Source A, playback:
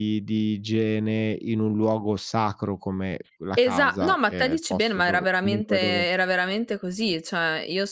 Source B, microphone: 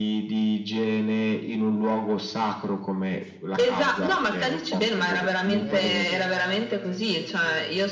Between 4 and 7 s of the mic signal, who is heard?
both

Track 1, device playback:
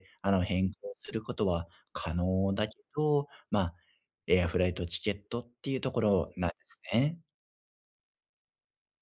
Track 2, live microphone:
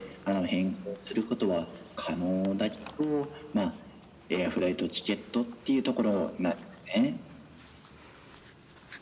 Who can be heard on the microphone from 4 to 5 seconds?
echo only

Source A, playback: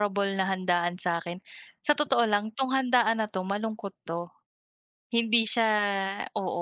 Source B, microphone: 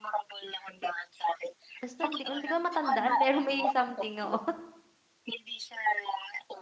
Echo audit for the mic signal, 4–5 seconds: both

